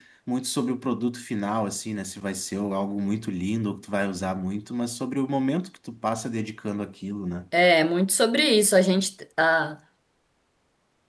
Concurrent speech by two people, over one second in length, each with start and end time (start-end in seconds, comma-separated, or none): none